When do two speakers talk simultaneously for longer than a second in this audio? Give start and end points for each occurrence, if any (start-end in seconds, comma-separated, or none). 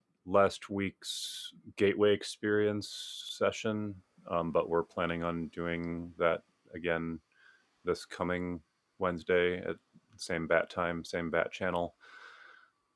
none